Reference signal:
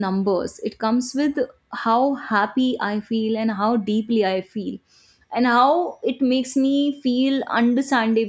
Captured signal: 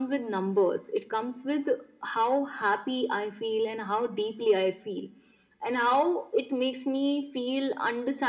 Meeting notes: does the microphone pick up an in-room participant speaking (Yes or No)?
No